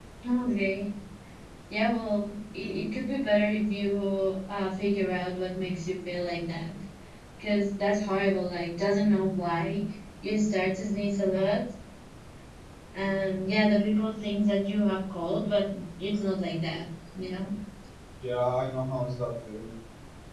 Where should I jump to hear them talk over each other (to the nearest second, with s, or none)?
none